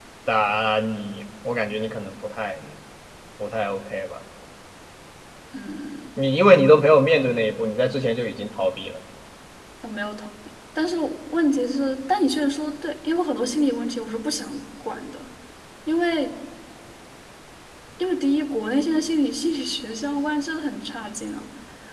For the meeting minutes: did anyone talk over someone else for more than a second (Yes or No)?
No